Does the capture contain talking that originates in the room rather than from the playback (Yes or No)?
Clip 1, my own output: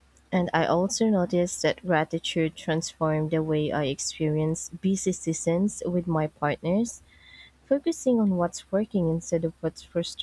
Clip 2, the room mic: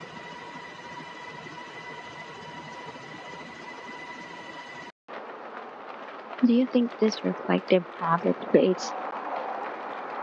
Yes